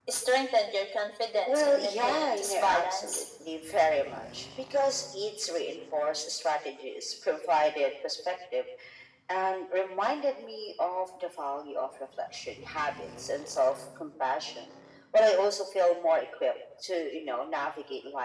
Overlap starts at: 1.4 s

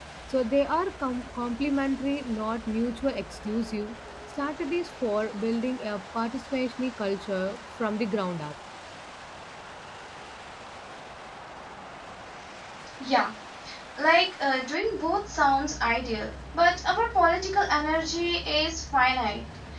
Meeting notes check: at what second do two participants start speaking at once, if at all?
none

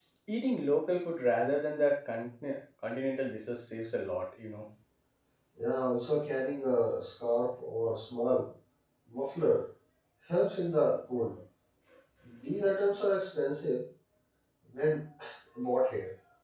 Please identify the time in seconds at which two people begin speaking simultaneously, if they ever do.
none

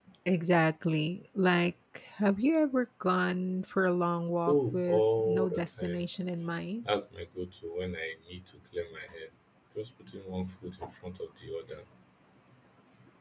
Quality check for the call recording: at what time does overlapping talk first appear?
4.5 s

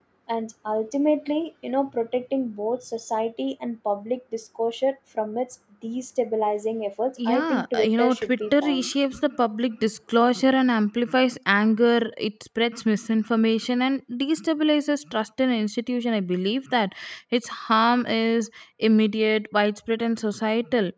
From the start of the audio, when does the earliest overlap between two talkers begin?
7.2 s

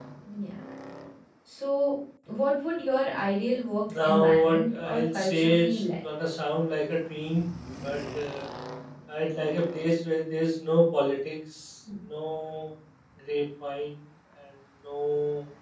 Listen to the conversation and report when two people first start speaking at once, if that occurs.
3.9 s

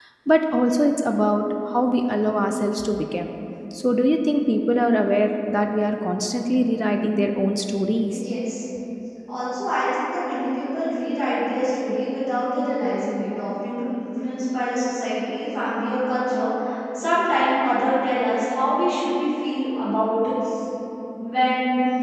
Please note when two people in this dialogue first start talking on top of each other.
none

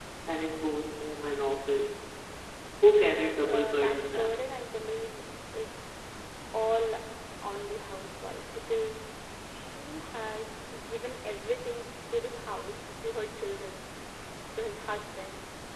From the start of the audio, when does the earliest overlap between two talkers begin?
2.8 s

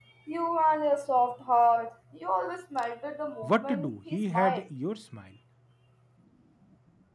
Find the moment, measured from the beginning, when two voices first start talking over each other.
3.4 s

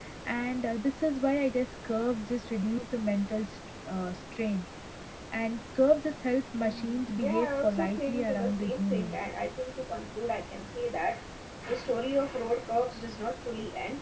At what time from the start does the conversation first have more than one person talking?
6.6 s

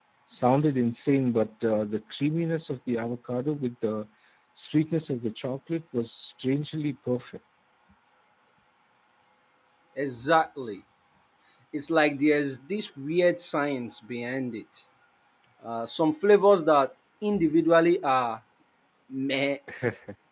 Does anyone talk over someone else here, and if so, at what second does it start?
none

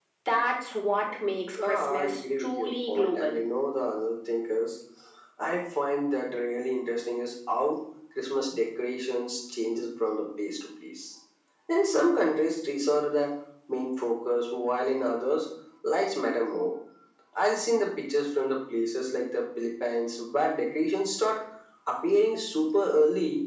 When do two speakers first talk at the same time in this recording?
1.6 s

